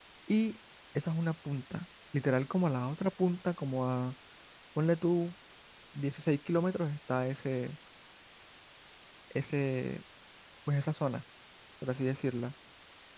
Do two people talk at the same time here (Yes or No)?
No